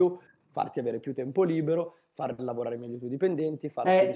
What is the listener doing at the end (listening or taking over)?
taking over